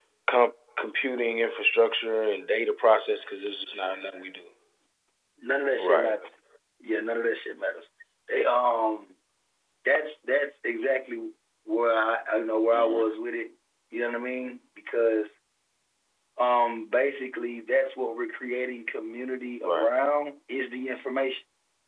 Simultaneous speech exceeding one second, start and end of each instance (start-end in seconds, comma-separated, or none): none